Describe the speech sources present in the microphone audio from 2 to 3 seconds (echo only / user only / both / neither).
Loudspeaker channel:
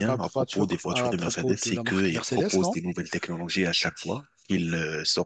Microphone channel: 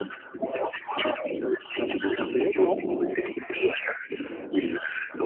echo only